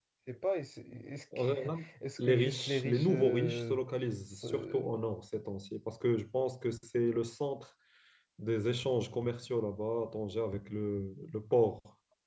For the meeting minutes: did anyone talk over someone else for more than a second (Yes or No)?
Yes